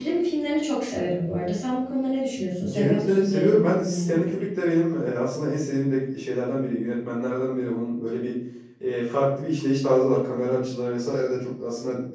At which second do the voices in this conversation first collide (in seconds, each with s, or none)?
2.6 s